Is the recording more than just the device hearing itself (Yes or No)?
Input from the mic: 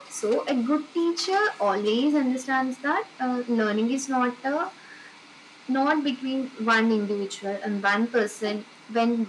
No